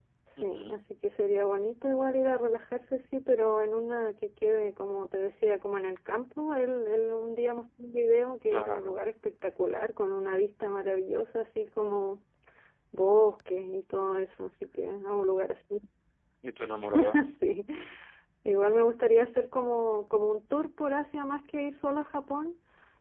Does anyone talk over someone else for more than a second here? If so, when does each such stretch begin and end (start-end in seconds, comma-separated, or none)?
none